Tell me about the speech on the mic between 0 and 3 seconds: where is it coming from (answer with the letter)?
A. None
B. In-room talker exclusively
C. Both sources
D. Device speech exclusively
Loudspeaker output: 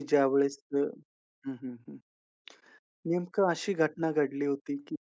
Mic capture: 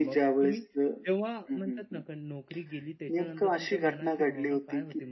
C